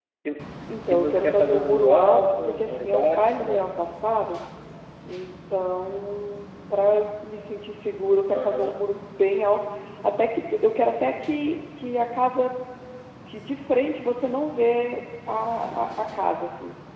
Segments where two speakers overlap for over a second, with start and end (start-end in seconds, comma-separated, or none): 0.9-3.7